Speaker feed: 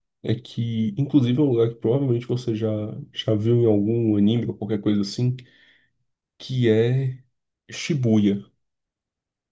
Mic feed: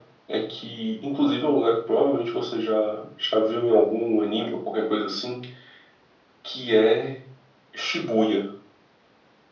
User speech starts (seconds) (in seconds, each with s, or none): none